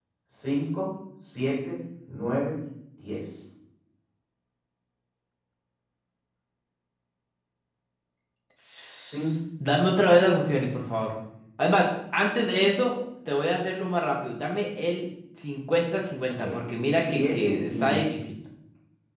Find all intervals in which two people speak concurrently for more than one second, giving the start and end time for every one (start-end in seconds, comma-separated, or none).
17.0-18.2